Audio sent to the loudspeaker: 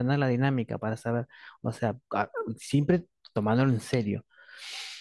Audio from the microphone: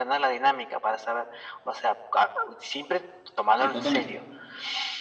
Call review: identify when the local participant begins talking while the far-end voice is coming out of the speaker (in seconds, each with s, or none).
3.6 s